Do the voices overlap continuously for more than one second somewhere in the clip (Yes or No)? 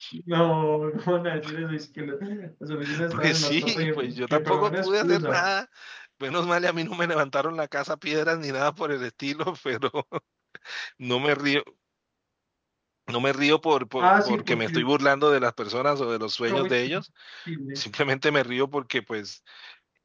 Yes